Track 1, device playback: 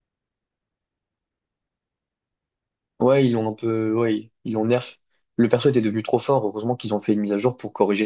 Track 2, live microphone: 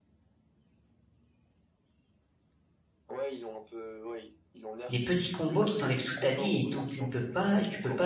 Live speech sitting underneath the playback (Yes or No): No